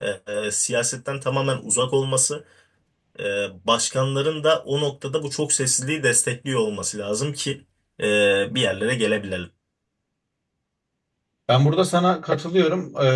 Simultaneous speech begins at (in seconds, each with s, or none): none